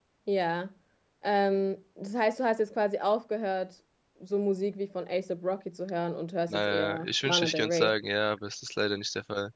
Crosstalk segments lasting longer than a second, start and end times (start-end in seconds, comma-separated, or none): 6.5-7.9